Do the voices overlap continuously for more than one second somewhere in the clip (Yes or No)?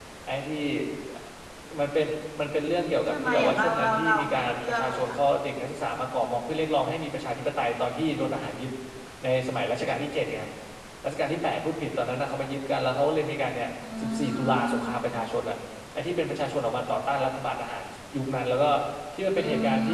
Yes